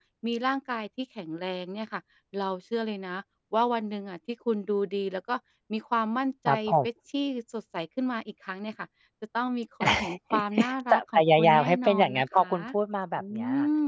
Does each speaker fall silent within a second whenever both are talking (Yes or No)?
No